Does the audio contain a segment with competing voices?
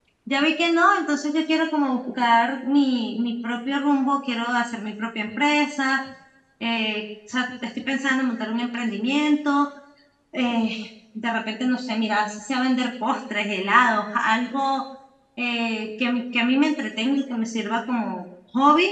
No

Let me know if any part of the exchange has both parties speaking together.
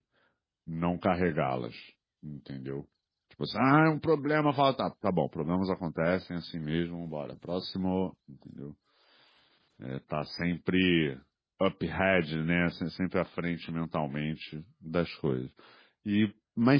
No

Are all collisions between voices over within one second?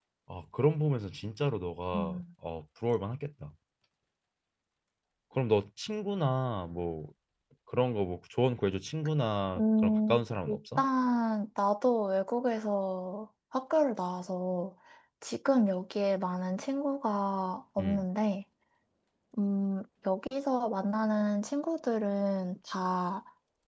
No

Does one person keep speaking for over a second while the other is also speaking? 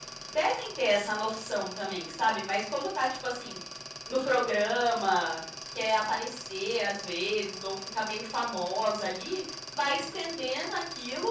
No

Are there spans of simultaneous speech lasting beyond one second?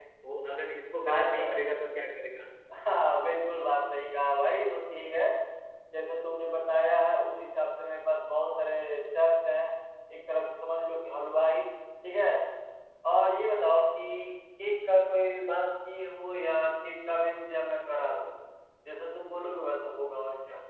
No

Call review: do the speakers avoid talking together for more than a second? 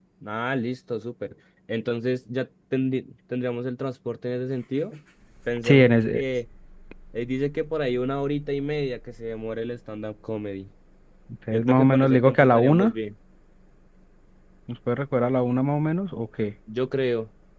No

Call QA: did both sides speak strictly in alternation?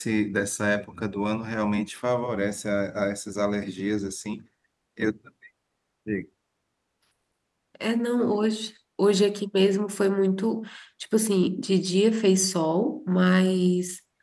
Yes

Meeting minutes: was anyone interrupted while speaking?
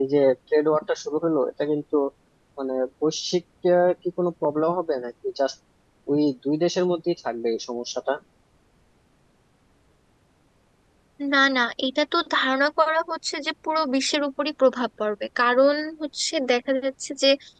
No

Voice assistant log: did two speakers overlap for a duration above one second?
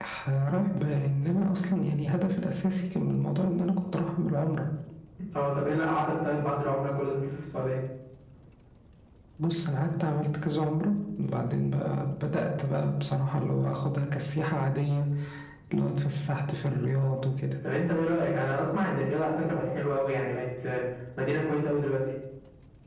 No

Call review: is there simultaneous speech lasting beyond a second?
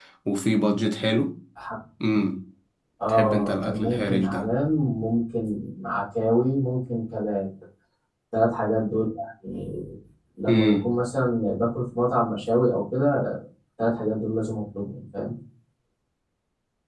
Yes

